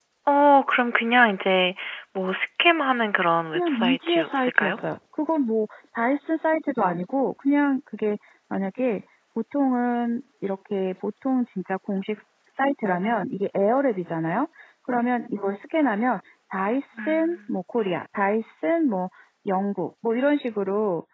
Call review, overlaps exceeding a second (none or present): present